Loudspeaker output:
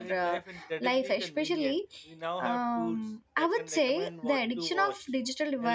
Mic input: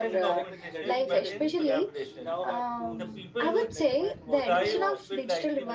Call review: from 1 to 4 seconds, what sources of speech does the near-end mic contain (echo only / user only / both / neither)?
both